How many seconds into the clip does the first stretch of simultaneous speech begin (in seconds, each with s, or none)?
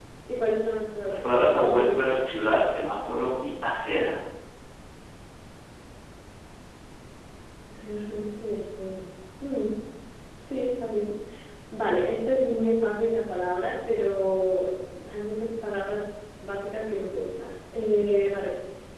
1.1 s